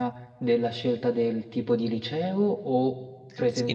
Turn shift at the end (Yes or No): Yes